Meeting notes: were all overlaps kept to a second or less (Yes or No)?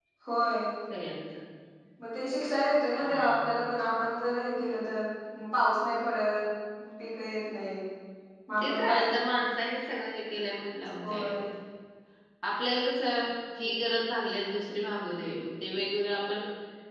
Yes